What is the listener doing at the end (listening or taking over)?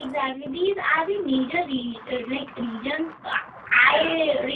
listening